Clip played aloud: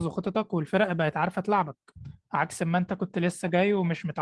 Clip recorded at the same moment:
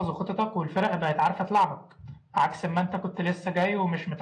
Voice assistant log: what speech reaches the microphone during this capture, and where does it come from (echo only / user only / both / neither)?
echo only